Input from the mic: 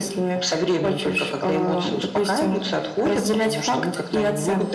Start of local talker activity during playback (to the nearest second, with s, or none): none